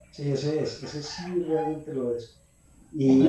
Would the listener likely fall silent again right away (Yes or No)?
No